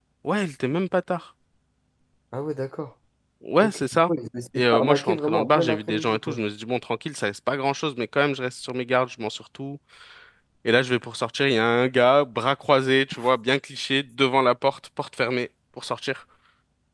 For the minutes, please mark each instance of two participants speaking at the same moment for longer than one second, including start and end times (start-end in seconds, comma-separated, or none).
4.6-6.4